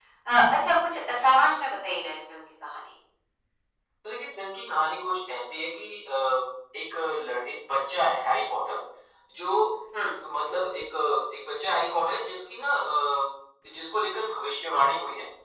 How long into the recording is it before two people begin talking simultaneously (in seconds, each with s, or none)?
none